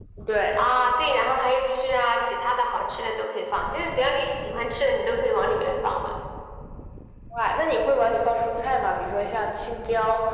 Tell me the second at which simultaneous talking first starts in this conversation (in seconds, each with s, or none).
none